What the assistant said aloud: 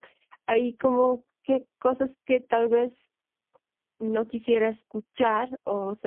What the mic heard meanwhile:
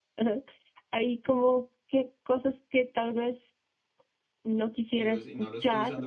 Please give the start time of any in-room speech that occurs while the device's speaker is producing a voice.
4.9 s

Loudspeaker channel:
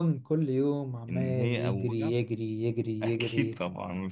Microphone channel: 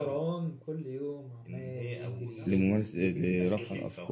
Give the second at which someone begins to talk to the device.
2.4 s

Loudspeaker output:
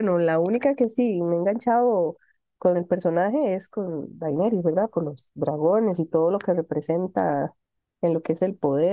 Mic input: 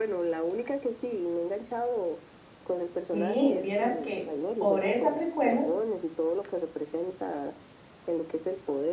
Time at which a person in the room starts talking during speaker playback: 3.1 s

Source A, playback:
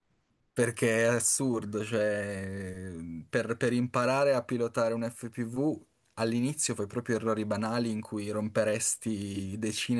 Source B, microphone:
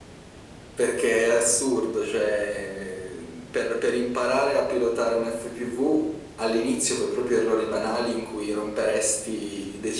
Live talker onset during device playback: none

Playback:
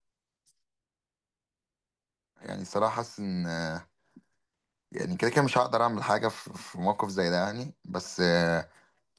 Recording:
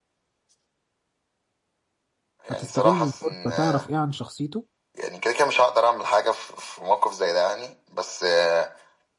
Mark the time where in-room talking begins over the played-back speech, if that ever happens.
2.5 s

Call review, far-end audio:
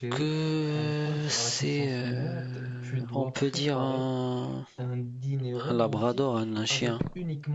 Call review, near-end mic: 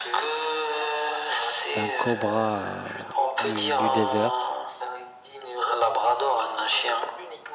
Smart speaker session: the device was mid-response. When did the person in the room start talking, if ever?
1.7 s

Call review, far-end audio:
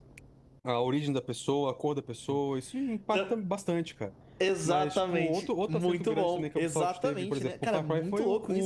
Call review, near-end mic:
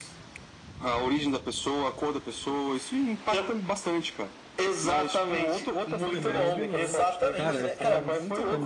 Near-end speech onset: 6.0 s

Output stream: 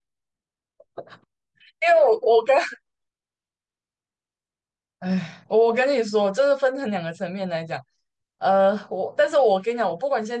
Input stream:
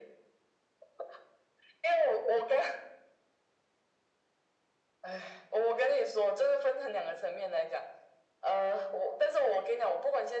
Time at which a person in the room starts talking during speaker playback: none

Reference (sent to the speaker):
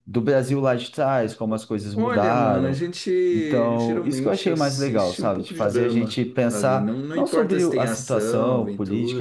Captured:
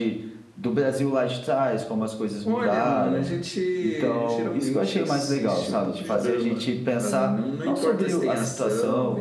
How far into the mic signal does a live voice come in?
none

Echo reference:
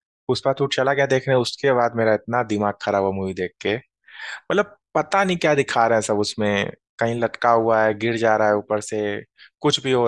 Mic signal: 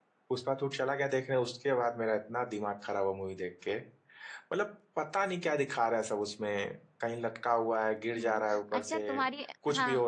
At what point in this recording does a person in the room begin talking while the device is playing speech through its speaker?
8.2 s

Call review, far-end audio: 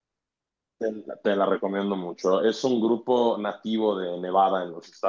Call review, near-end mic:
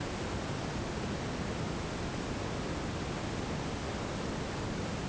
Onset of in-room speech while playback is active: none

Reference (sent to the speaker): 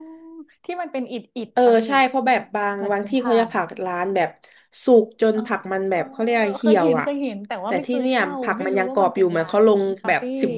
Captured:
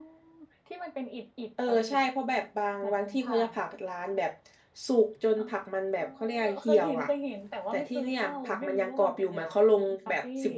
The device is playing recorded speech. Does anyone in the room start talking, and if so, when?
none

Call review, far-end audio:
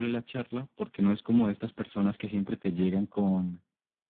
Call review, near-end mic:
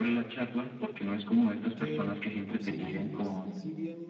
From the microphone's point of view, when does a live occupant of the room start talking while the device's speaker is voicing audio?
1.7 s

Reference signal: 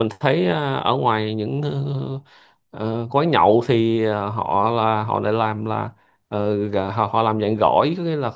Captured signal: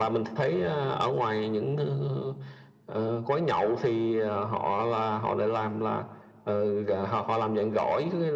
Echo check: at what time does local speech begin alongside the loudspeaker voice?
none

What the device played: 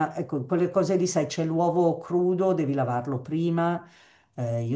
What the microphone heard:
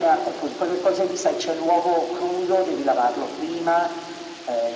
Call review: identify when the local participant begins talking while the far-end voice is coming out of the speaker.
none

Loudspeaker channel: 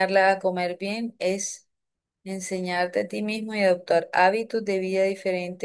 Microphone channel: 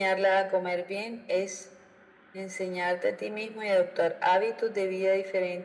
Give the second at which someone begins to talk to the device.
none

